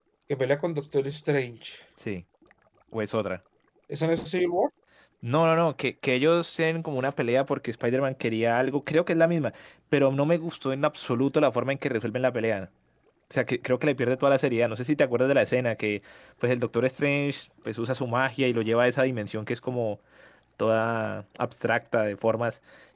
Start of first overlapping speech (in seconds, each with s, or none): none